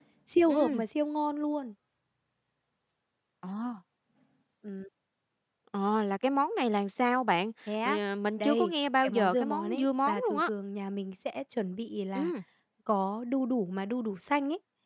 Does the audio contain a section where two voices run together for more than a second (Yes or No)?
Yes